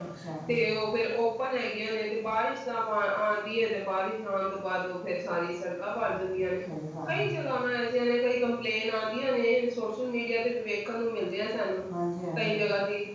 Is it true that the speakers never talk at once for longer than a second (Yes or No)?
Yes